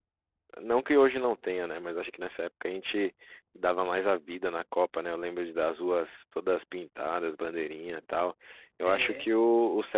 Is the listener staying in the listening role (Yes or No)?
Yes